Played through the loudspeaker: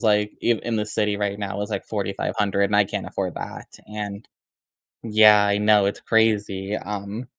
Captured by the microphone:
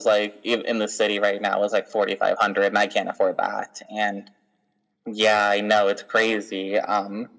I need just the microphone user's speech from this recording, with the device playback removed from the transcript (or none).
none